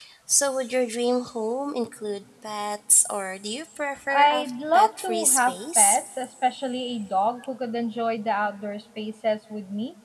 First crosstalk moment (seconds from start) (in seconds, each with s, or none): 4.1 s